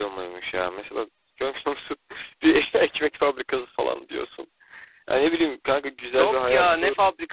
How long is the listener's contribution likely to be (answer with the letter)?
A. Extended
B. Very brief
A